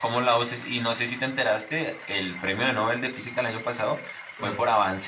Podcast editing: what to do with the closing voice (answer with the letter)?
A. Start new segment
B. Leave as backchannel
B